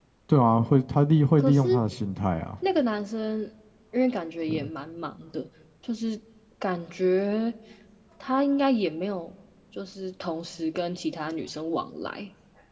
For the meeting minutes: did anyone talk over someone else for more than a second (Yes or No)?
No